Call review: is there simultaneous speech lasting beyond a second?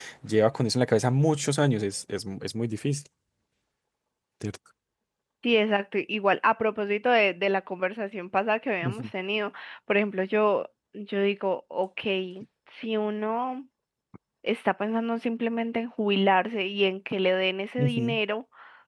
No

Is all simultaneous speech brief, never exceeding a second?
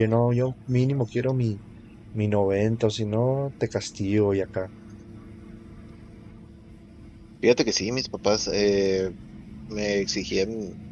Yes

